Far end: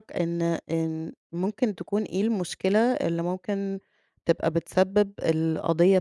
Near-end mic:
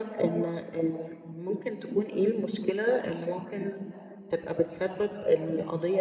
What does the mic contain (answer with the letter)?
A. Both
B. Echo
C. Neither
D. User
B